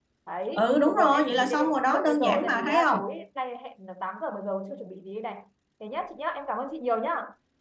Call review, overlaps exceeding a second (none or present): present